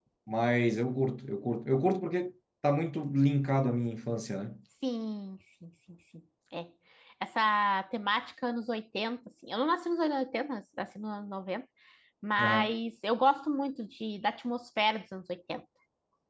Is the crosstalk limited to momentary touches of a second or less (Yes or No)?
Yes